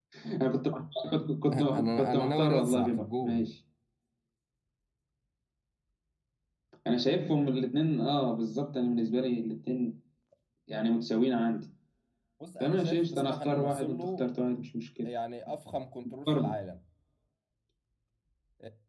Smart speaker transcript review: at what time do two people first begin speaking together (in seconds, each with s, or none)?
1.5 s